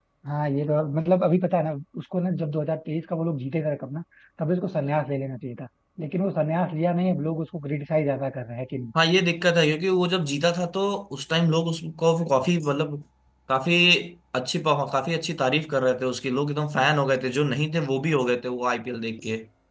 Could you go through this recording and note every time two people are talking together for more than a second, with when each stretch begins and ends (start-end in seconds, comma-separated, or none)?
none